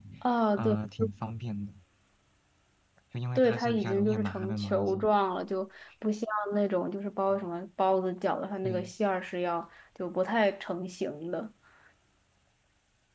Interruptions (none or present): present